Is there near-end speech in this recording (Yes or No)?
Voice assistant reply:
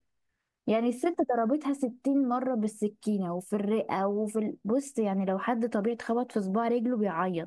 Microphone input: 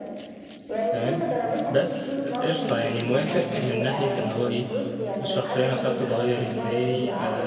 Yes